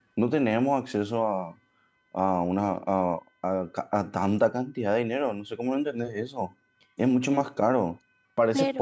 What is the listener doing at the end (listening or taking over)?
listening